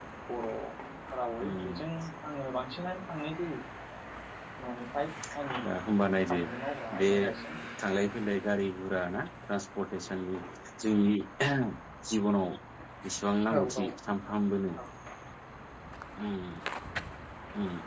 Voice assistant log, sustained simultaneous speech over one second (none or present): none